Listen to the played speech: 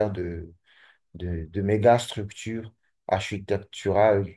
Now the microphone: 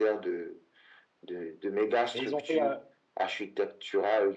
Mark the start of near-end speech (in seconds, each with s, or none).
2.1 s